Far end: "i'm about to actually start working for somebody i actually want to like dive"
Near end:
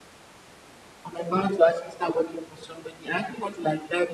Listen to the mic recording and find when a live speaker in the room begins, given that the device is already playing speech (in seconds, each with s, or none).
none